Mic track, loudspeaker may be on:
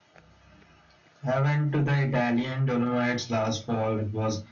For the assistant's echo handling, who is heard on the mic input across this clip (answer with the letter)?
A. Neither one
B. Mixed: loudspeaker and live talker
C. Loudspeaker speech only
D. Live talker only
C